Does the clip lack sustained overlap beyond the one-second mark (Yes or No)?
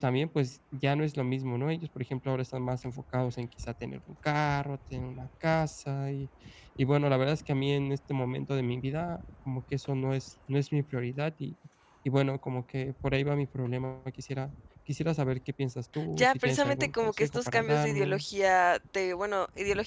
No